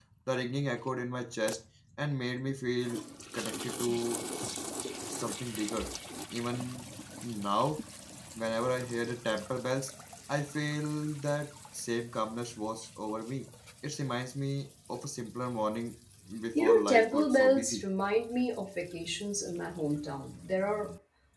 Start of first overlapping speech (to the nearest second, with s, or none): 17 s